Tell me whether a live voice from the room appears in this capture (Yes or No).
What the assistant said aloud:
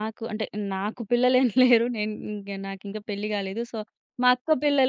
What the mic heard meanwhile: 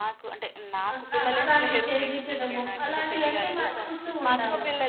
Yes